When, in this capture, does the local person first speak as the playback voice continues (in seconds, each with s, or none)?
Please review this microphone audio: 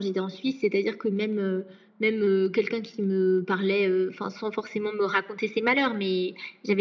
none